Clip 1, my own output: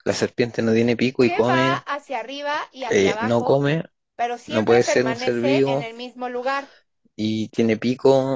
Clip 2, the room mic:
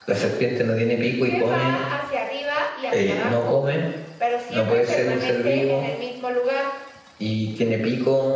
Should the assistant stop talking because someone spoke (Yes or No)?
No